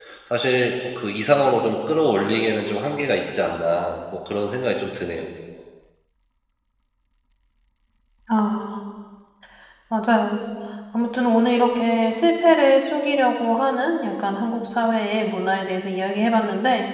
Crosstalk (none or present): none